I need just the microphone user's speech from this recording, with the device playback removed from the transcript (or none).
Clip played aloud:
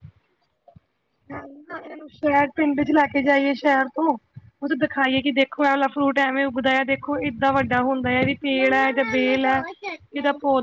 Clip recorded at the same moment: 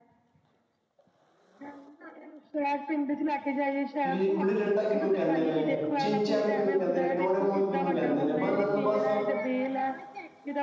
ਠੀਕ ਹੈ ਜੀ ਗੁੱਲੀ ਡੰਡਾ ਕਿਹਨੂੰ ਕਹਿੰਦੇ ਨੇ ਚਿਨਚੈਨ ਕਿਹਨੂੰ ਕਹਿੰਦੇ ਨੇ ਡੋਰੇਮੋਨ ਕਿਹਨੂੰ ਕਹਿੰਦੇ ਨੇ ਬ ਨਾਨੂੰ ਬਸ